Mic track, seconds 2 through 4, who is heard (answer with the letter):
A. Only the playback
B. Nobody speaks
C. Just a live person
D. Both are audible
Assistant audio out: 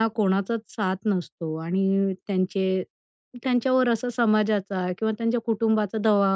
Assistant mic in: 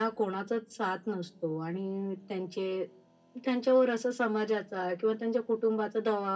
A